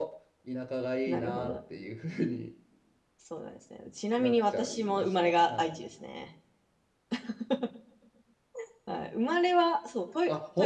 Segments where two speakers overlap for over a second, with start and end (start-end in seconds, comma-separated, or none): 4.2-5.8